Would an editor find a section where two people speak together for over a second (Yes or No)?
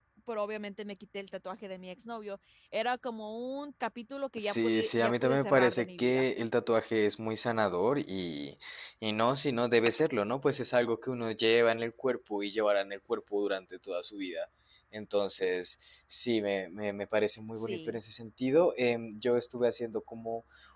Yes